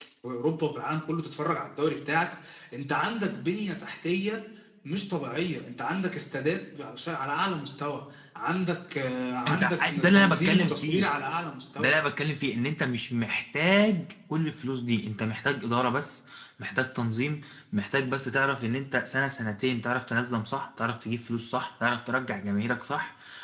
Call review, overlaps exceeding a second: present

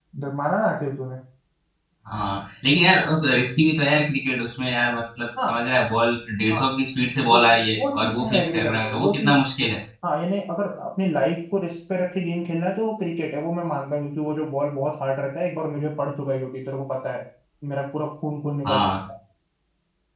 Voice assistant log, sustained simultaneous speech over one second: present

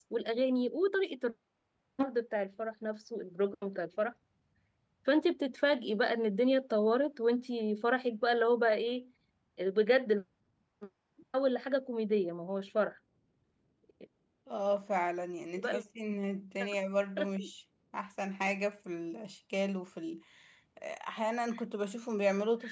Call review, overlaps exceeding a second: none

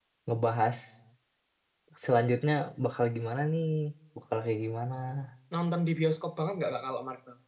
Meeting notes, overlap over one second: none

